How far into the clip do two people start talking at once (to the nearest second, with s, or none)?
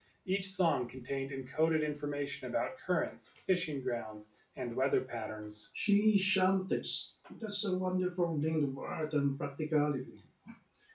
none